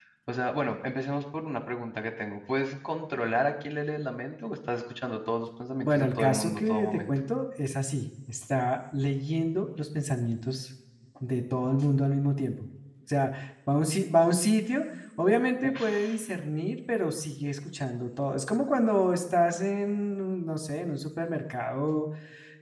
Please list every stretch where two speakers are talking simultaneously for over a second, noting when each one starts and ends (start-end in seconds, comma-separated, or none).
5.8-7.1